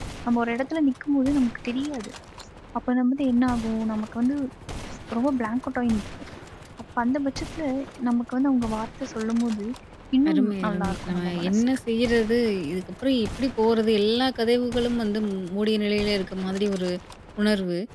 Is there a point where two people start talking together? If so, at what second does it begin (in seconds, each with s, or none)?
10.3 s